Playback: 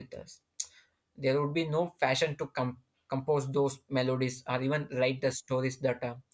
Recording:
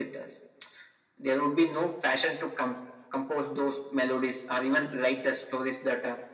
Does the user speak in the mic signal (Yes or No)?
No